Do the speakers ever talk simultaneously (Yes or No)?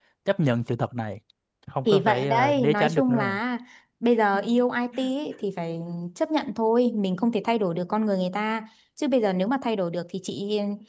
Yes